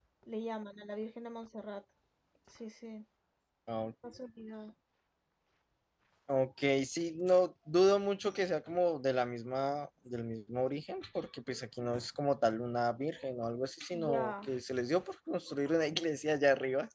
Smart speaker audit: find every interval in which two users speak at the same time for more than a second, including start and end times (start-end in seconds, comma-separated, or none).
none